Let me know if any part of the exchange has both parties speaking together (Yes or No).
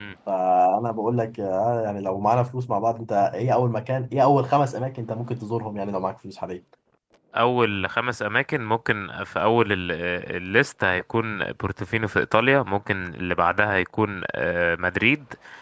No